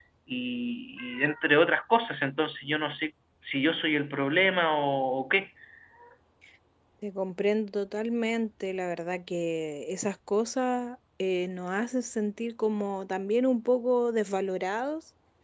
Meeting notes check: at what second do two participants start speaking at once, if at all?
none

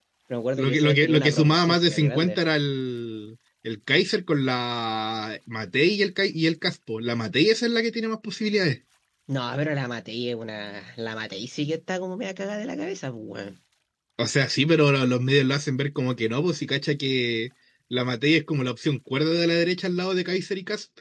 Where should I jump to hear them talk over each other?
0.6 s

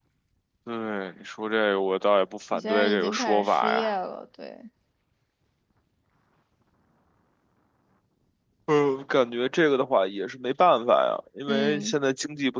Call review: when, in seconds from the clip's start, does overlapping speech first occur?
2.5 s

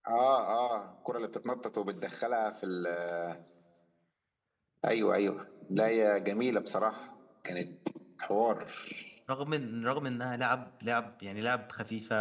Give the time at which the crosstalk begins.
none

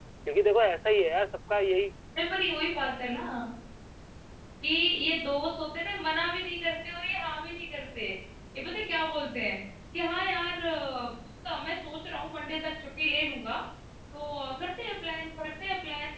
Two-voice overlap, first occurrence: none

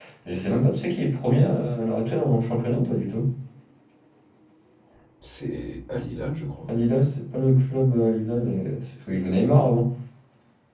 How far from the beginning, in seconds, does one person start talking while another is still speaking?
none

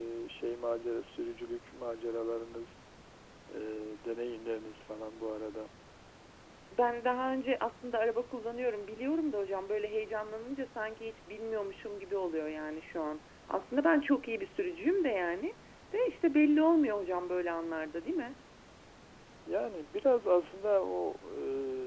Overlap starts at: none

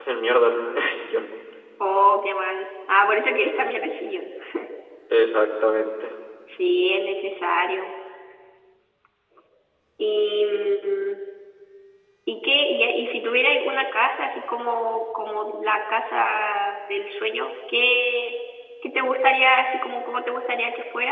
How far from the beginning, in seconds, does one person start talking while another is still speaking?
none

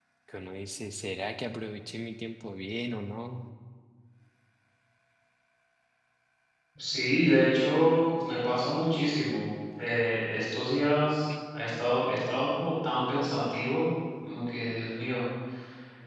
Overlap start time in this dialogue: none

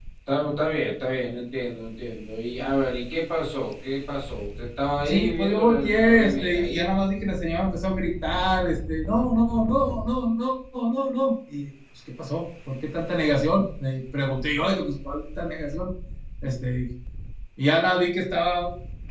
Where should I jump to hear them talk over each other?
5.0 s

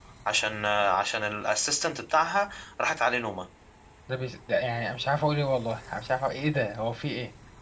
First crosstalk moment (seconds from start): none

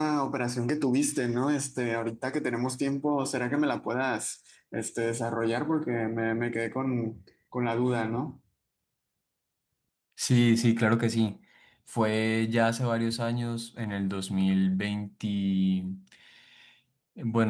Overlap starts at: none

